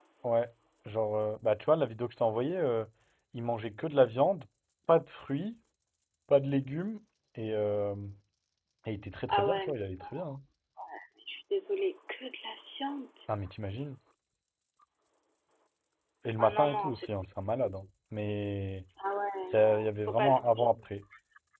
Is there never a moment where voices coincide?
No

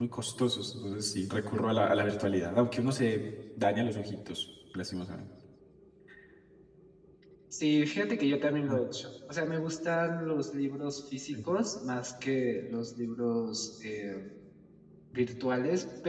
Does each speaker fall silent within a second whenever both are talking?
Yes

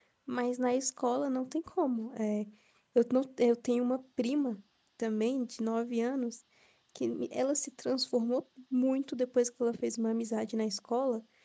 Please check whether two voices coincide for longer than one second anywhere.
No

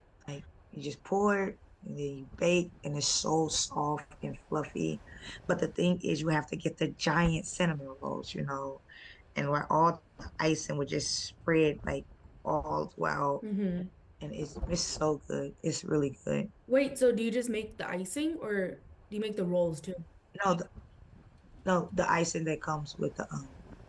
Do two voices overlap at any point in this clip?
No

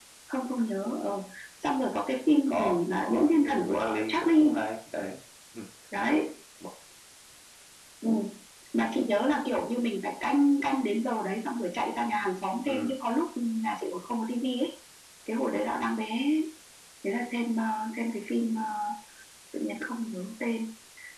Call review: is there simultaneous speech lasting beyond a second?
Yes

